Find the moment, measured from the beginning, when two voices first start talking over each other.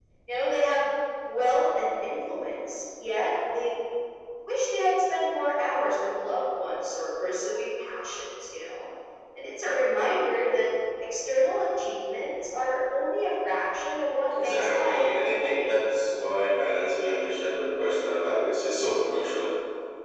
14.3 s

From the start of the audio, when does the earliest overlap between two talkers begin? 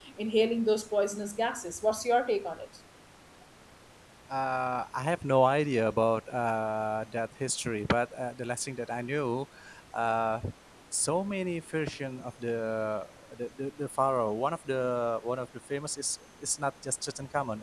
none

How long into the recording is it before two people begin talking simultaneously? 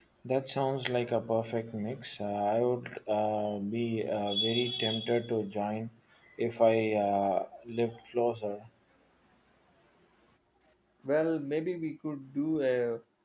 none

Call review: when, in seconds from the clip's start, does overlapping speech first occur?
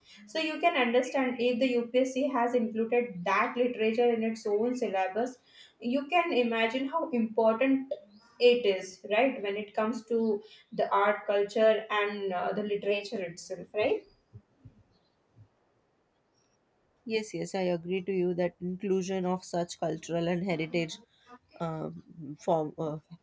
none

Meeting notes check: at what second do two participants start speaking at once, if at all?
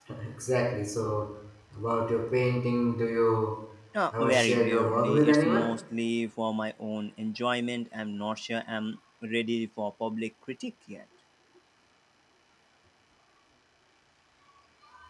4.1 s

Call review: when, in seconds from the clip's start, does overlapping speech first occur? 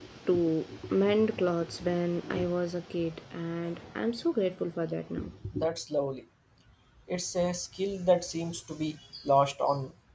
none

